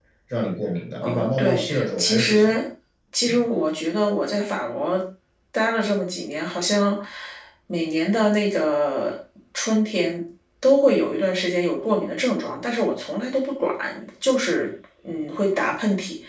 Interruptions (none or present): present